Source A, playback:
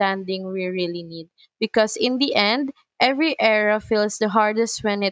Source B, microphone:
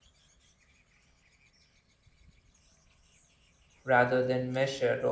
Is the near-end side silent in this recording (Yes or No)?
No